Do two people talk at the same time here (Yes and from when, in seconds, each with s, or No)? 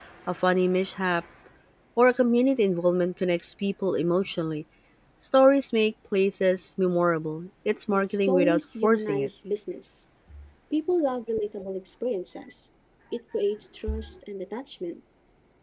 Yes, from 7.9 s